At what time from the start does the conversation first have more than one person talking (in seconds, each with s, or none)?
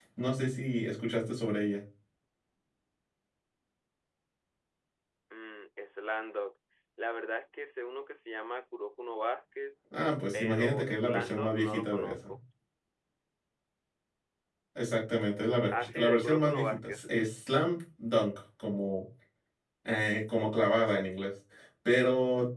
10.3 s